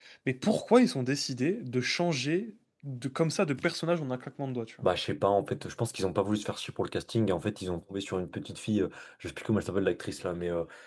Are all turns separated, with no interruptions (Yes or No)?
Yes